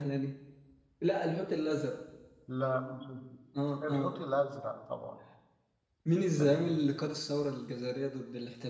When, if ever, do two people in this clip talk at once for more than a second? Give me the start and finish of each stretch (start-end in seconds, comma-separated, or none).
none